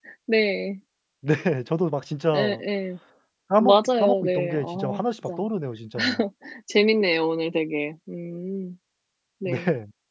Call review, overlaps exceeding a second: present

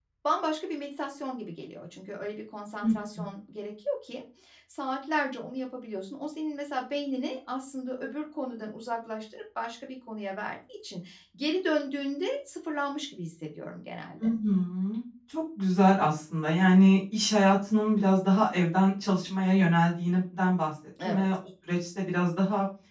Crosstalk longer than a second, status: none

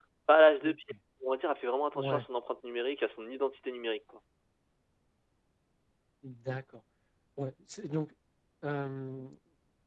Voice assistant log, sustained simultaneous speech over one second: none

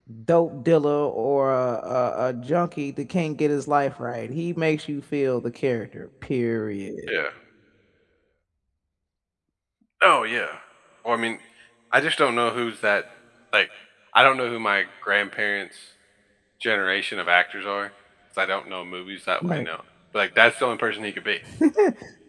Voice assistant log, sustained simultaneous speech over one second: none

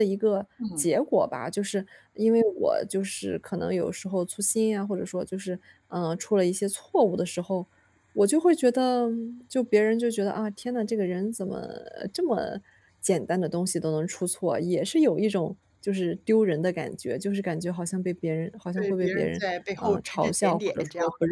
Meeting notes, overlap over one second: present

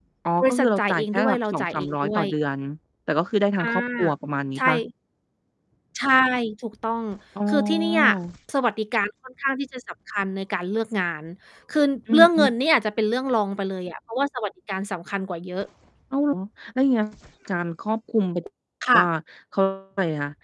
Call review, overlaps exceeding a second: present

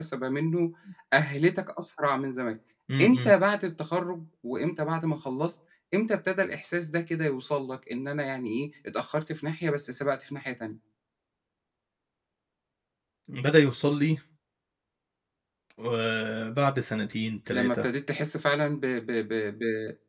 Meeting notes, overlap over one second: none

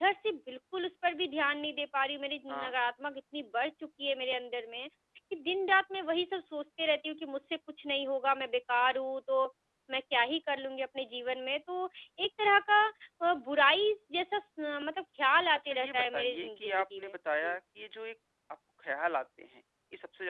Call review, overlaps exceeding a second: present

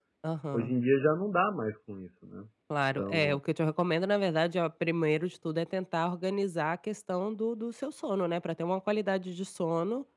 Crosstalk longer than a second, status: none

